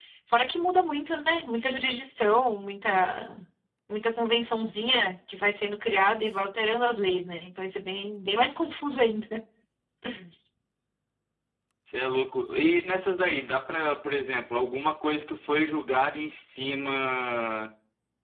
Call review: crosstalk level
none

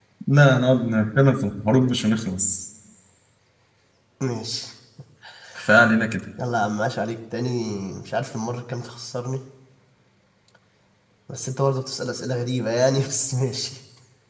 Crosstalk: none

